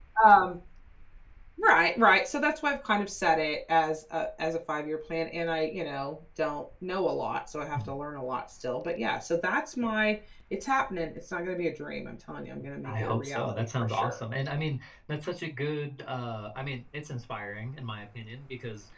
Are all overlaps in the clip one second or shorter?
No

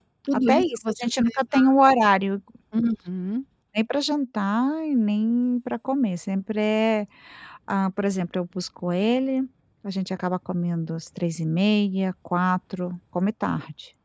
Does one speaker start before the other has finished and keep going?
Yes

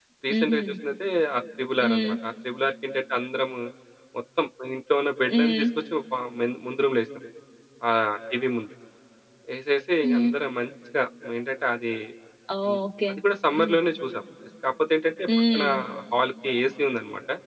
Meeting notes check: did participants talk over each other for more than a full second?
No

